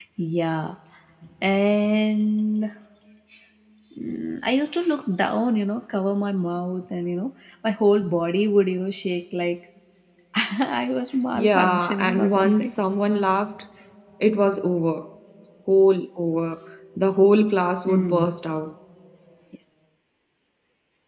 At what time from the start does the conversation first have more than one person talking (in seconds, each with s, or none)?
11.3 s